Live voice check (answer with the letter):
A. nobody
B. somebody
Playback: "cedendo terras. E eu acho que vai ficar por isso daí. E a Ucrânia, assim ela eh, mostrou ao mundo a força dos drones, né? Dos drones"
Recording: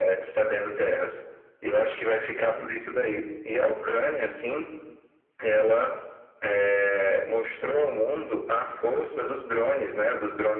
A